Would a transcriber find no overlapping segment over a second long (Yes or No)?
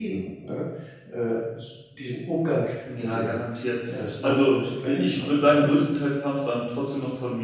No